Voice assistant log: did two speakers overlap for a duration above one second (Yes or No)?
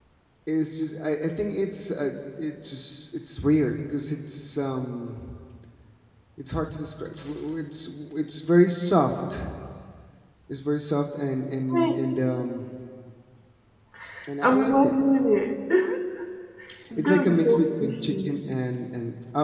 Yes